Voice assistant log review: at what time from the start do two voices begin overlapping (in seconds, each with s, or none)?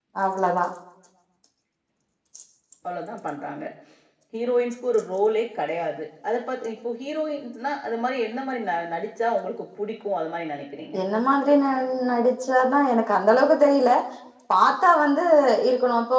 none